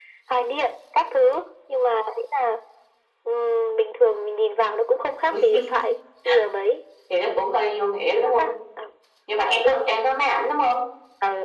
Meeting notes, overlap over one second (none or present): none